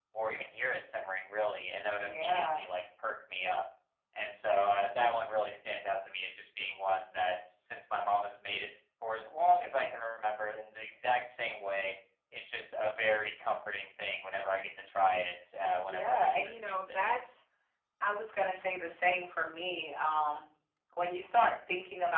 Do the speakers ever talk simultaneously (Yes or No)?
Yes